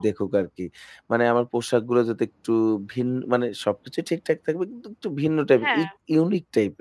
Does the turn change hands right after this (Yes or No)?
No